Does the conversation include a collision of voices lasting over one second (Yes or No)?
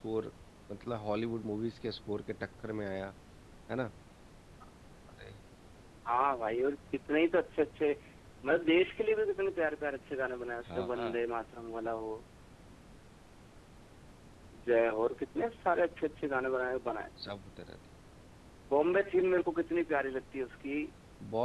No